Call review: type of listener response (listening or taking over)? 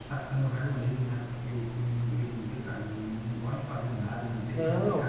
listening